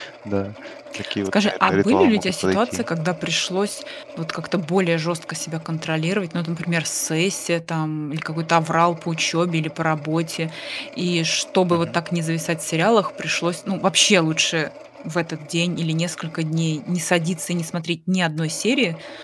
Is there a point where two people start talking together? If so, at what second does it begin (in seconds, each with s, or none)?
1.2 s